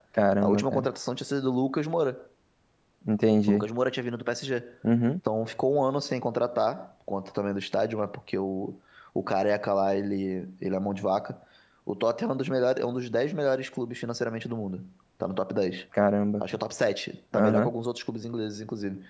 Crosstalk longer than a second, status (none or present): none